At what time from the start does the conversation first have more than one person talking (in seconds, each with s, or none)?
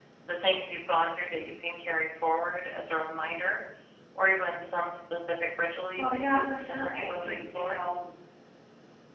6.0 s